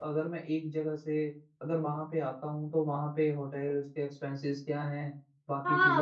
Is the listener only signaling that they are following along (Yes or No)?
No